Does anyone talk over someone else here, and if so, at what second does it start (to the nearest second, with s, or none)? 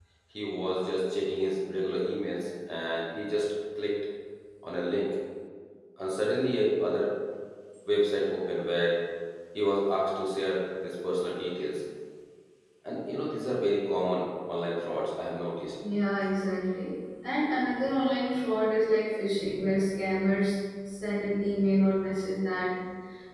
none